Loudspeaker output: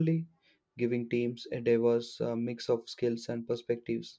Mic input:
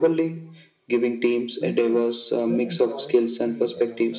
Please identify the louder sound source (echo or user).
echo